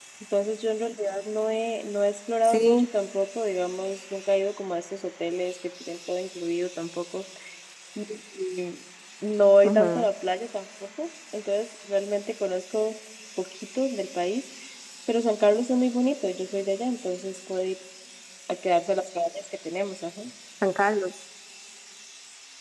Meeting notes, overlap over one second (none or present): none